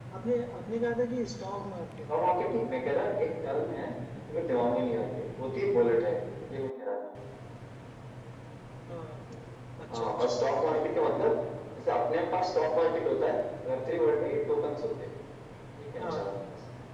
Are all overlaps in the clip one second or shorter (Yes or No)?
Yes